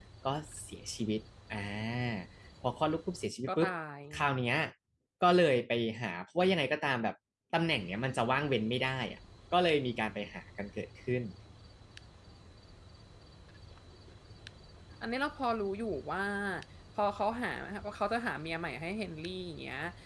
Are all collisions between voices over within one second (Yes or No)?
Yes